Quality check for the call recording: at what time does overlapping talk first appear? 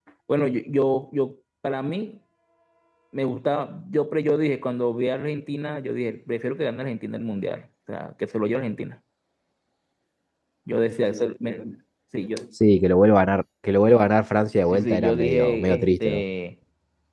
15 s

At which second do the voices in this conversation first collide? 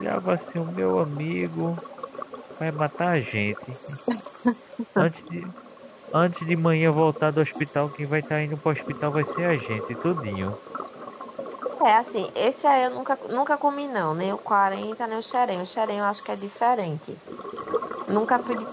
none

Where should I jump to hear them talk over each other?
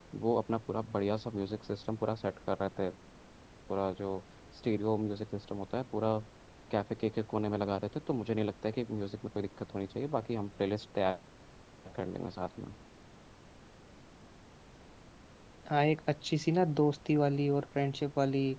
none

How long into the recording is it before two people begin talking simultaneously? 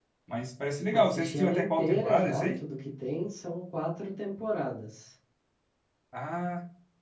1 s

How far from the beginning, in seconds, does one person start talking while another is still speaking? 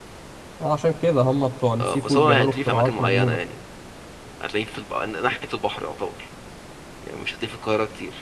2 s

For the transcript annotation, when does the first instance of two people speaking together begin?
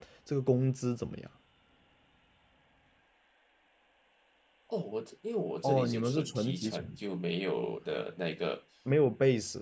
6 s

